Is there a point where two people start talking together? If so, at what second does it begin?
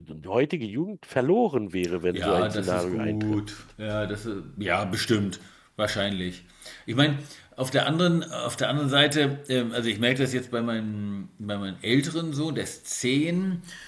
2.1 s

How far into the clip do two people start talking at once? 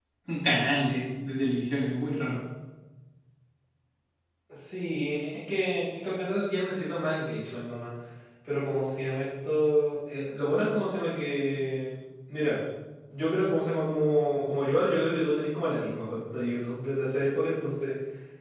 none

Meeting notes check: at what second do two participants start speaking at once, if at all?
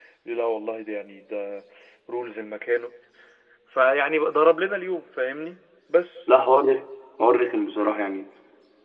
none

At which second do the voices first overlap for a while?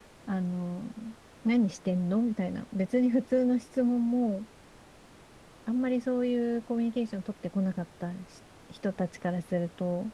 none

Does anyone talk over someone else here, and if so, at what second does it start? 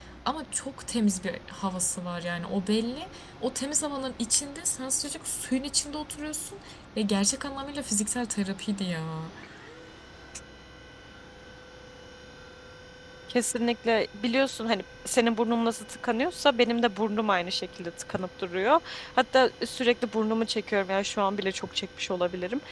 none

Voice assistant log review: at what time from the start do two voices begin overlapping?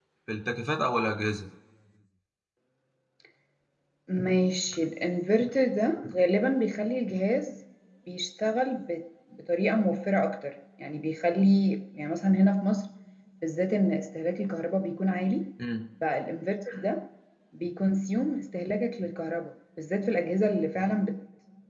none

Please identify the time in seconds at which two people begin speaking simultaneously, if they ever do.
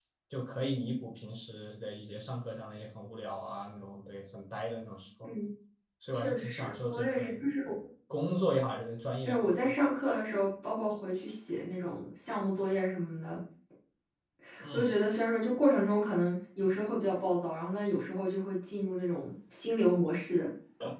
6.1 s

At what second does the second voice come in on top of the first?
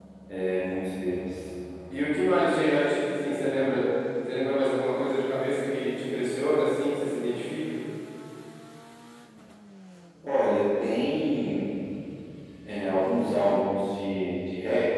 none

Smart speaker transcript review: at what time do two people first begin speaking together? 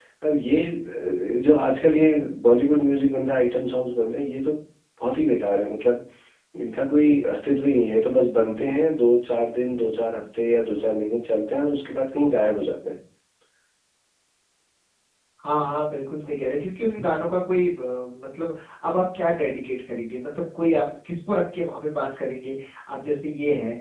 none

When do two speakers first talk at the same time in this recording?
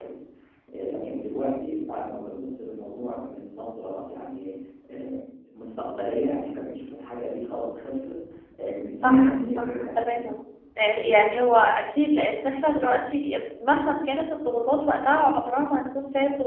9.0 s

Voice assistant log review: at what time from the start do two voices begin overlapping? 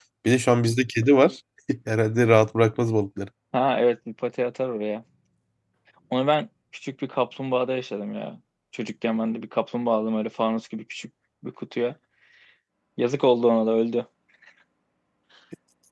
none

